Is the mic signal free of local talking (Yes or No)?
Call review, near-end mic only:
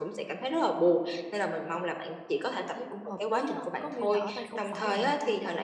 No